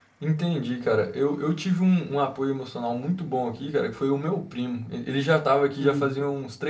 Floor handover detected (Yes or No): No